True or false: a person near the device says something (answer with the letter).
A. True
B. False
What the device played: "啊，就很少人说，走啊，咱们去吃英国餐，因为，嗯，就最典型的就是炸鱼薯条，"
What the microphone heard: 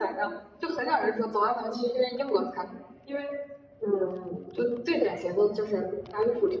B